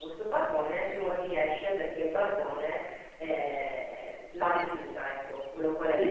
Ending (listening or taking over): taking over